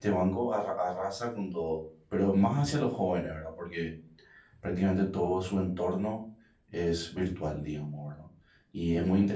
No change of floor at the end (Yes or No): Yes